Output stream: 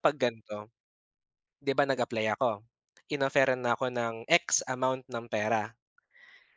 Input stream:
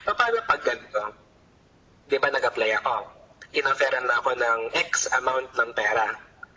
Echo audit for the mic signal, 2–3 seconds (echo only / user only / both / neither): echo only